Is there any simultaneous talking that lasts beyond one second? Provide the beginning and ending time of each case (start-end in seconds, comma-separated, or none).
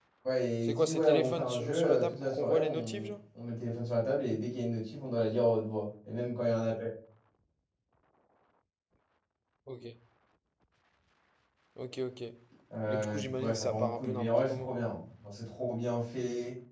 0.6-3.1, 12.9-14.7